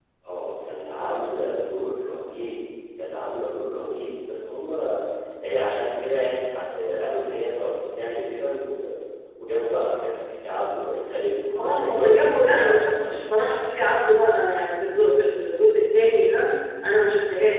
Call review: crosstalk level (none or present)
present